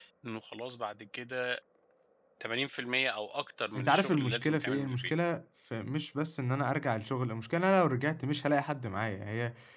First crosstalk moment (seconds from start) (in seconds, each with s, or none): 3.8 s